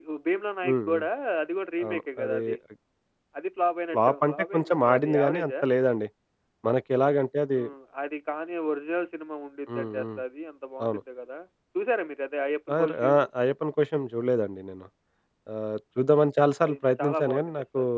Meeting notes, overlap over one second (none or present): present